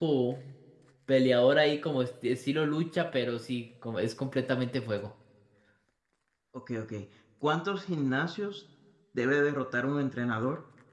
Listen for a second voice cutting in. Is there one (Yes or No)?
No